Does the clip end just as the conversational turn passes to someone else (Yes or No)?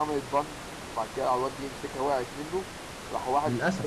No